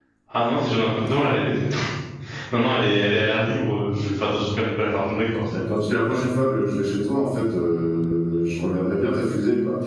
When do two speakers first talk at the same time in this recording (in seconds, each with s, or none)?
none